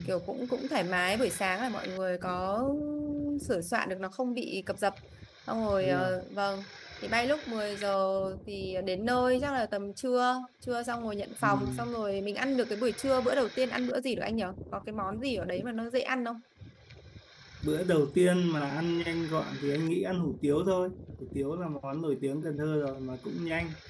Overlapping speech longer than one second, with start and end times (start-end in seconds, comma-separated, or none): none